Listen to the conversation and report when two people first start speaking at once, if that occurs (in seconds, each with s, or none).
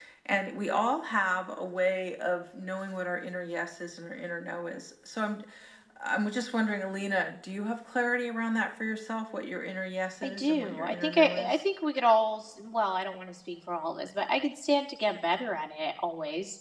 10.2 s